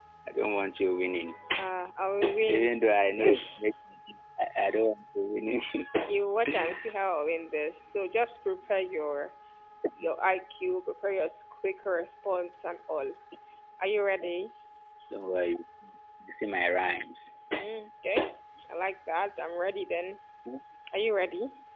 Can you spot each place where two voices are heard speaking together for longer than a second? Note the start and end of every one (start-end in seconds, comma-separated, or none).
none